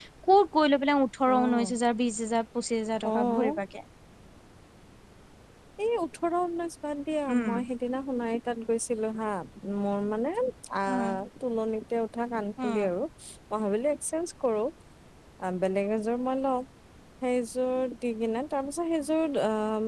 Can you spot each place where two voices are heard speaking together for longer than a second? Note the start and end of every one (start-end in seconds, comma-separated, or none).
none